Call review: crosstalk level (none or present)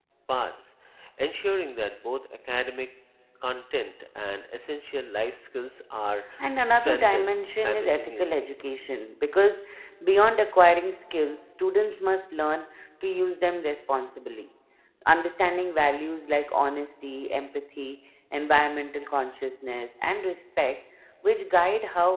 present